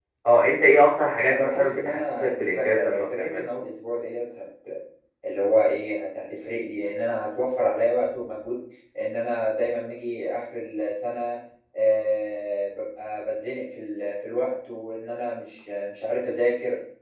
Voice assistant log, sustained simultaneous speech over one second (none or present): present